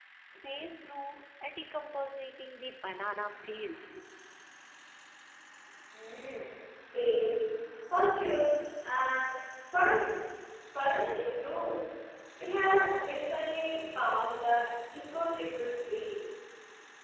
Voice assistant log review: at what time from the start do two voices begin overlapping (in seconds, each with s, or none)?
none